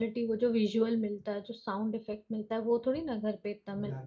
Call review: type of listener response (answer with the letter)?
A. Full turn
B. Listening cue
A